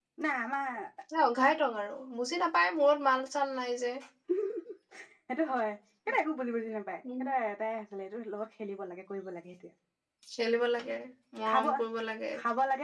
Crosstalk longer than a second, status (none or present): none